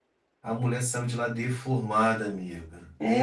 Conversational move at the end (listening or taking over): taking over